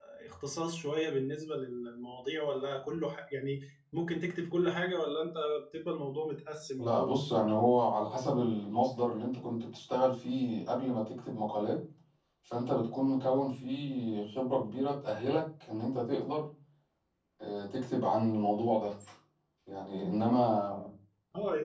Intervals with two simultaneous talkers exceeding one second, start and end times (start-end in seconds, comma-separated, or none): none